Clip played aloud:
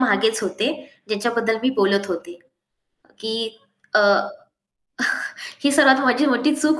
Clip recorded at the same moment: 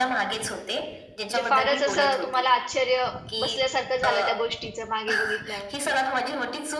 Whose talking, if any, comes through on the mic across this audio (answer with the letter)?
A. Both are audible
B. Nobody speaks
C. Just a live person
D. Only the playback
A